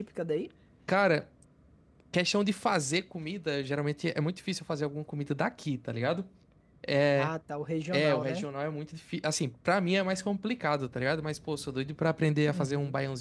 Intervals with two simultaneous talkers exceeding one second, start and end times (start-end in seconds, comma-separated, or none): none